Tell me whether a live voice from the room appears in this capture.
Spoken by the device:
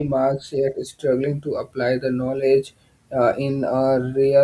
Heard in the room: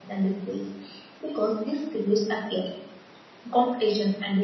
Yes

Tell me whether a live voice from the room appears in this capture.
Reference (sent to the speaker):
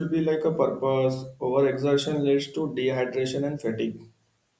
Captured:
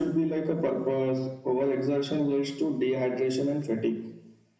No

